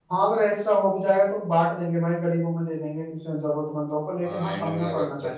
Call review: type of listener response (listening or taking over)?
taking over